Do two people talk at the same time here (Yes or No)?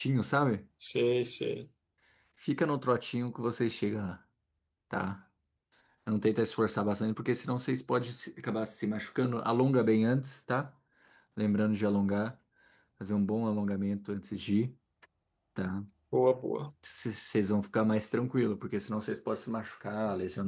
No